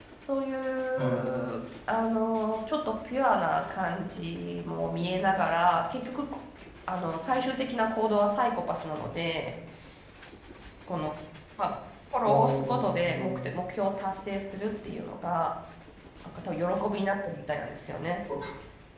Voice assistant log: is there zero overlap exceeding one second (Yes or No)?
No